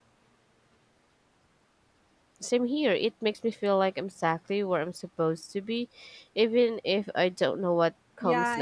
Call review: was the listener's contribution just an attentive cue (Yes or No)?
No